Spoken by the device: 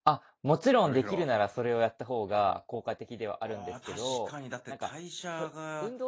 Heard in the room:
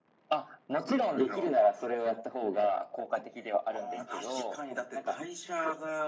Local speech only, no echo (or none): none